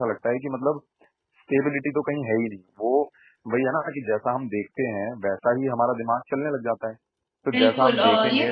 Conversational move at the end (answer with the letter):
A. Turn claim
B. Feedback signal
A